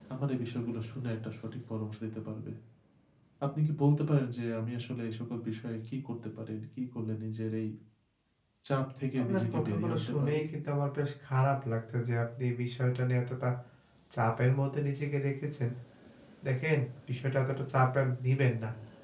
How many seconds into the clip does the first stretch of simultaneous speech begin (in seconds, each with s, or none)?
9.2 s